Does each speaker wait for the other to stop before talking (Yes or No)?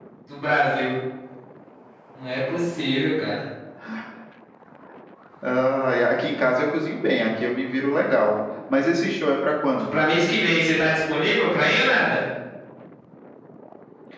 Yes